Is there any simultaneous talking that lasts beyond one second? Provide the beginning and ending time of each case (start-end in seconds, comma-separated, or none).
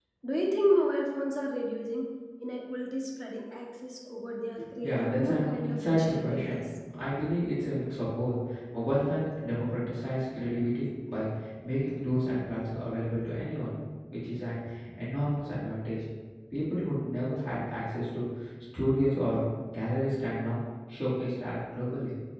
4.8-6.6